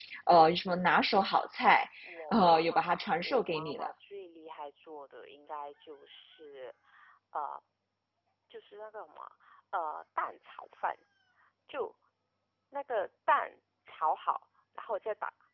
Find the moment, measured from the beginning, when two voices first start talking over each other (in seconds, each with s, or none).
2.3 s